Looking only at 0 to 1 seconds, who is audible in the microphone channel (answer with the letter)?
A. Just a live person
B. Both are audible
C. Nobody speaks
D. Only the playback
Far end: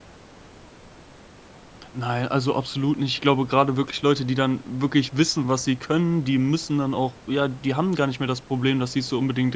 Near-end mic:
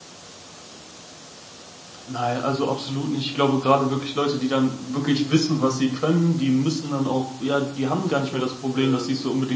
C